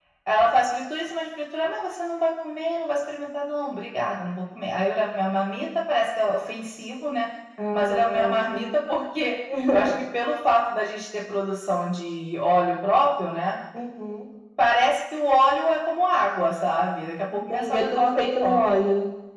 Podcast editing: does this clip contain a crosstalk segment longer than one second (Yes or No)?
Yes